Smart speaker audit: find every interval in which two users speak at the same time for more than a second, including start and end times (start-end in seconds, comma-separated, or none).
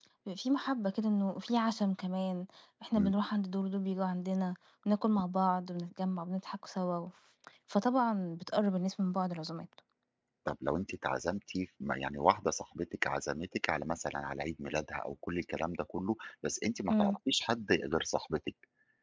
none